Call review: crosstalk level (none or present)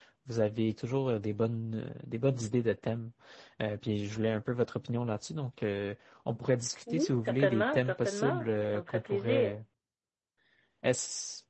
present